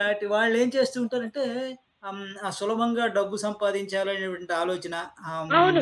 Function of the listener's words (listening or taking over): taking over